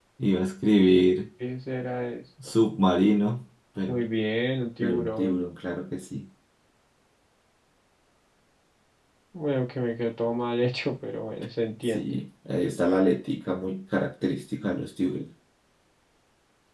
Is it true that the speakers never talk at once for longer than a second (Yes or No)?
Yes